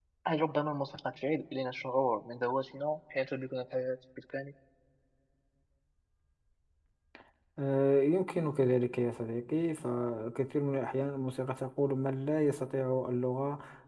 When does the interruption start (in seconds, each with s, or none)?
none